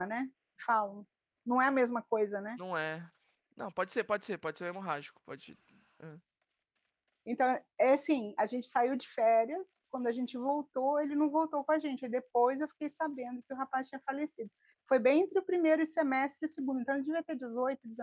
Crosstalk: none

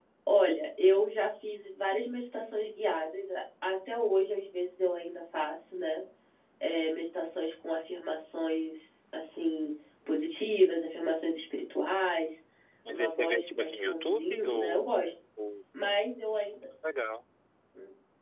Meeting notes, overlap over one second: present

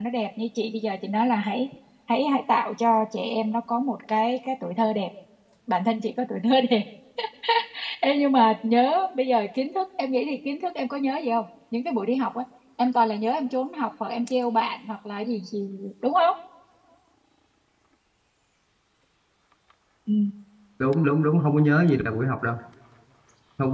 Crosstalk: none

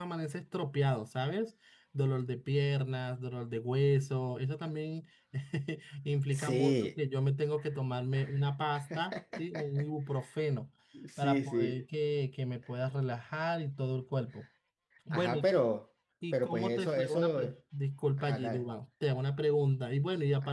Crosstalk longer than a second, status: present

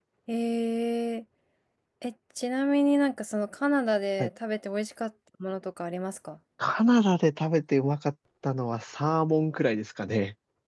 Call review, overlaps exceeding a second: none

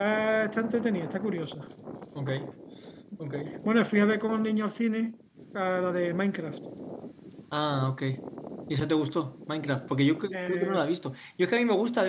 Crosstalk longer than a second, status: none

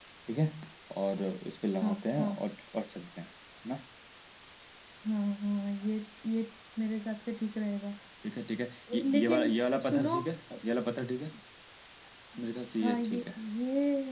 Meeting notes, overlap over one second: present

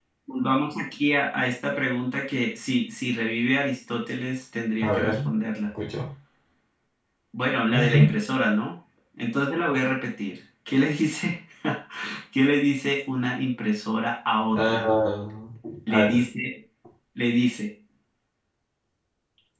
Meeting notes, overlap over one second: none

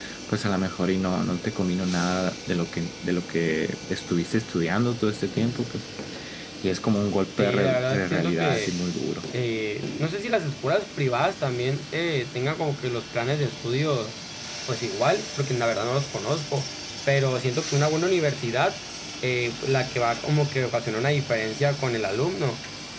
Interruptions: present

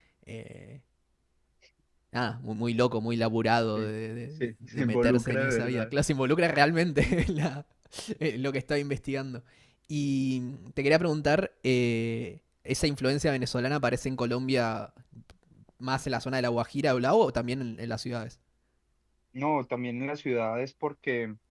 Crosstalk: present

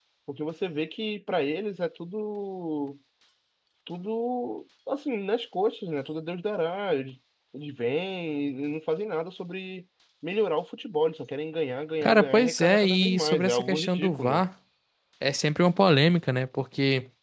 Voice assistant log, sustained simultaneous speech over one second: present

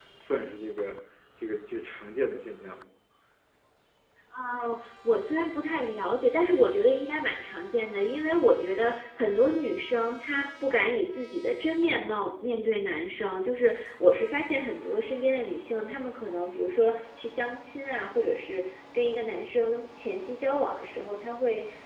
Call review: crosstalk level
none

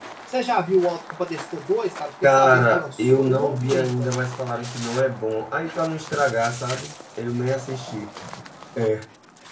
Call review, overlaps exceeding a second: present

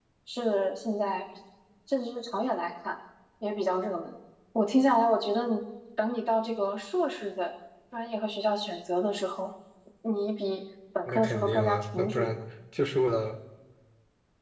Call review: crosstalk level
present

